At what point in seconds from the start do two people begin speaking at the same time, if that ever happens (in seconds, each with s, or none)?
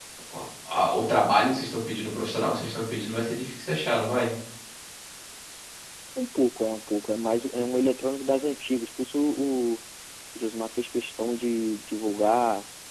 none